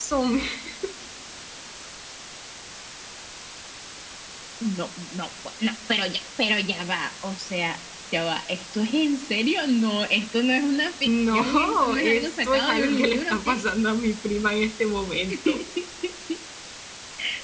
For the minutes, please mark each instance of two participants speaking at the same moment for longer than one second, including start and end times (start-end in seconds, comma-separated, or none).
11.1-13.5